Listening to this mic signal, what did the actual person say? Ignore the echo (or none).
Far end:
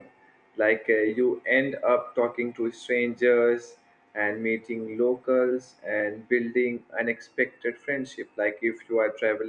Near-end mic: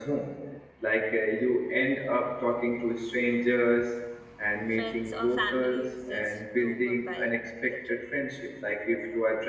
friends or family is just too good while the trip